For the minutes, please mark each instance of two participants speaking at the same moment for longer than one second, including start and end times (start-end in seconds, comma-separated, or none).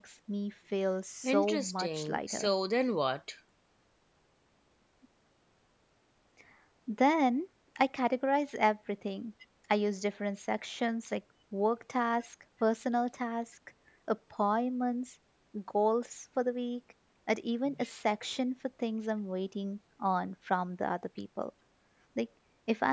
1.2-2.5